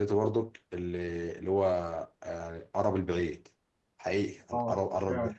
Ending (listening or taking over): listening